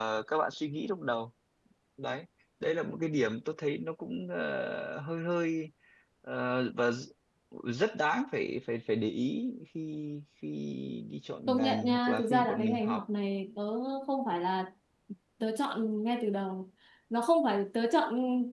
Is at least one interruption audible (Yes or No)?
Yes